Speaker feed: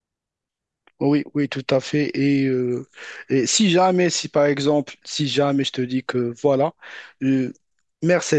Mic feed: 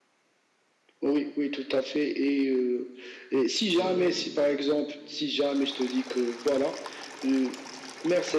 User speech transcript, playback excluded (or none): Oui, oui,